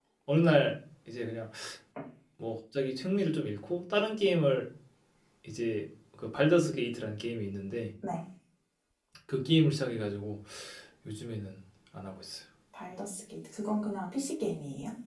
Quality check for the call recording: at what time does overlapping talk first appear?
none

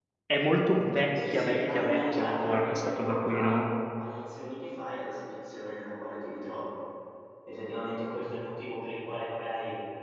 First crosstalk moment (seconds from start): 1.1 s

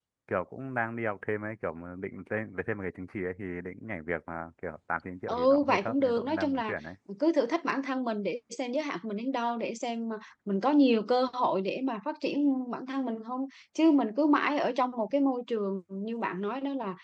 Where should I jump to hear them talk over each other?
5.3 s

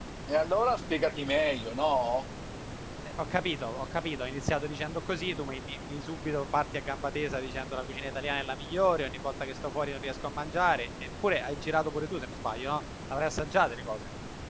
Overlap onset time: none

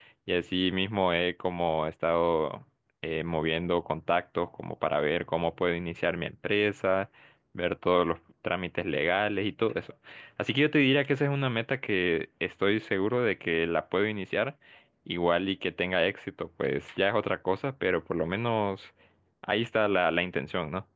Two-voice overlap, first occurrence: none

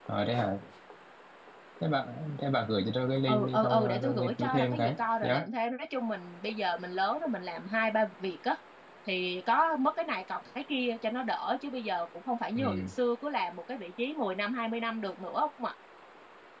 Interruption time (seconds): 3.3 s

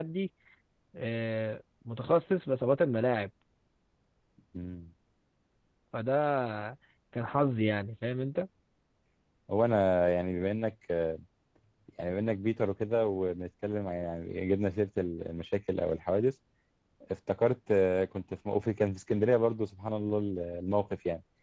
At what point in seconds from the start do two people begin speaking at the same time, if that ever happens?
none

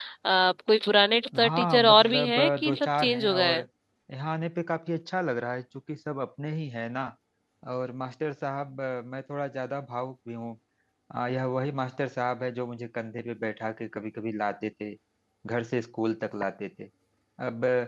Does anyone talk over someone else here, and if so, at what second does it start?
1.3 s

